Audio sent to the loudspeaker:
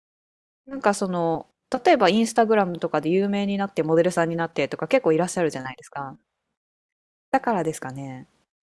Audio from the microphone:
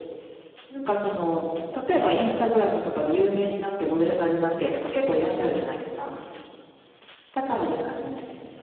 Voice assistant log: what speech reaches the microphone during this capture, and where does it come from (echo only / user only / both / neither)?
echo only